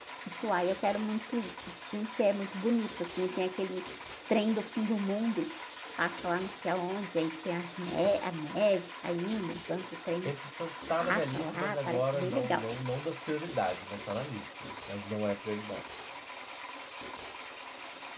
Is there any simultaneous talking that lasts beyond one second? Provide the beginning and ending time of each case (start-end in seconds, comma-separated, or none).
11.0-12.7